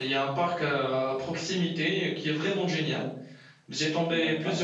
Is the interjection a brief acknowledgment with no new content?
Yes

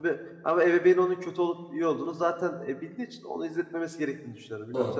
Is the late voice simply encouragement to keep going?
No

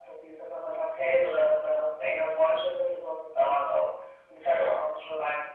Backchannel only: Yes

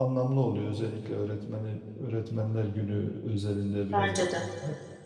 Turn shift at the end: No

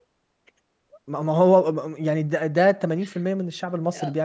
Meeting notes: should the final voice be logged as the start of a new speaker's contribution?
Yes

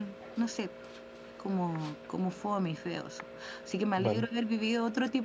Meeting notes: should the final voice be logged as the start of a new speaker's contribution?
No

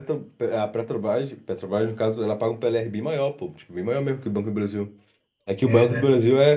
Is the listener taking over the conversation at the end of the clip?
No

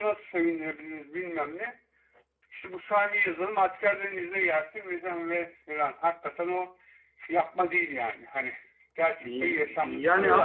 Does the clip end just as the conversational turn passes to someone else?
Yes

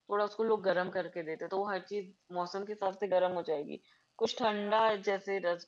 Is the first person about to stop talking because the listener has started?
No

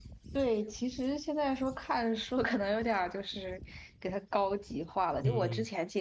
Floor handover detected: No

